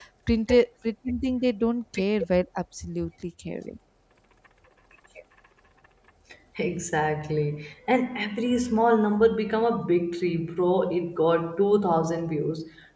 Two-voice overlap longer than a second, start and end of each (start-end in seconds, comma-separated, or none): none